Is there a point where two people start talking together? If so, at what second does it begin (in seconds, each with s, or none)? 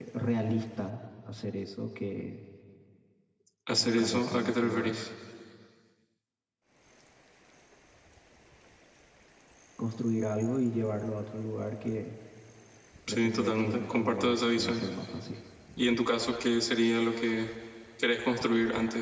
3.8 s